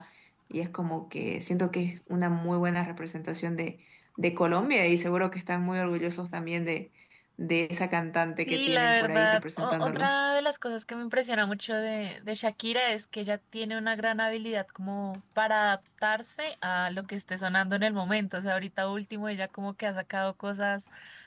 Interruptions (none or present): present